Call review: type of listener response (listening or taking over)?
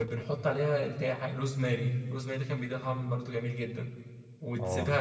listening